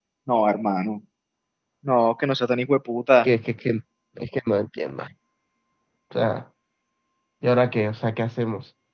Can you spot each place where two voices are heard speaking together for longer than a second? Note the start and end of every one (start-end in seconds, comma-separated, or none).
none